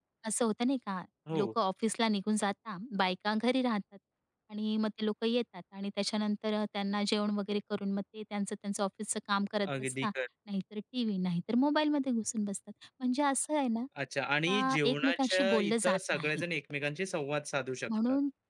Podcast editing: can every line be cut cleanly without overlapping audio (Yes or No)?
No